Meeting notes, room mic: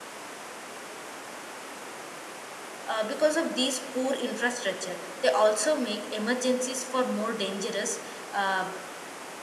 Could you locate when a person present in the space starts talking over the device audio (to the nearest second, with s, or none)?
3 s